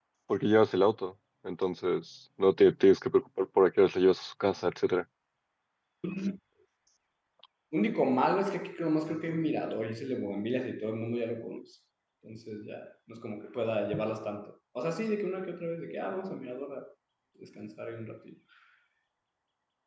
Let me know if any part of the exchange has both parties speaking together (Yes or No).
No